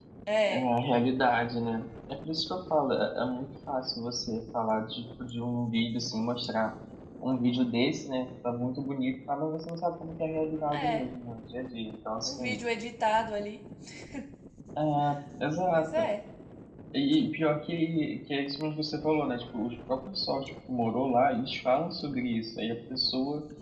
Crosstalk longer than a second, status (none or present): none